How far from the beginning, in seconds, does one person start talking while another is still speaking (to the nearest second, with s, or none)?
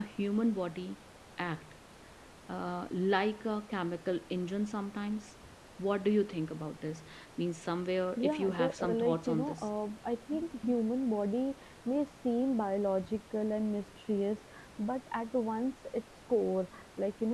8 s